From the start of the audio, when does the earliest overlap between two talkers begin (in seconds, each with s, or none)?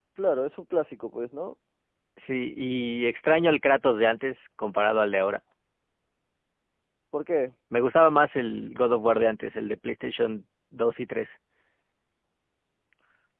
none